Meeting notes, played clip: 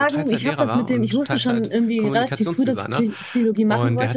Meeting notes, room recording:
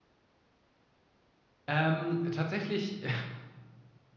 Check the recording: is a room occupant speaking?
Yes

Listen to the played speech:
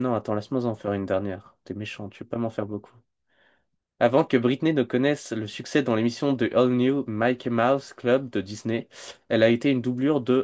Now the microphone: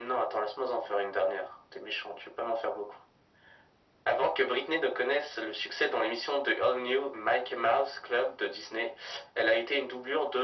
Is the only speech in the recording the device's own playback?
Yes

